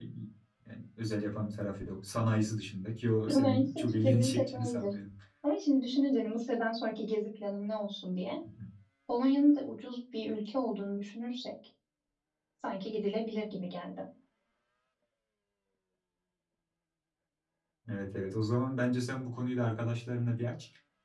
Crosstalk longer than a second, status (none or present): present